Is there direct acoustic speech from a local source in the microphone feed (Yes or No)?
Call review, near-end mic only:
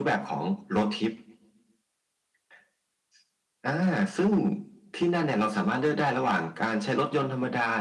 No